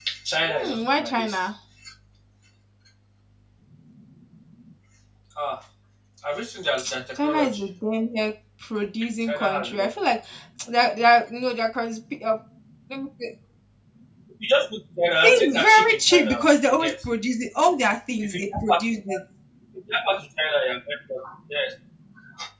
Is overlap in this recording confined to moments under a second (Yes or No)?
No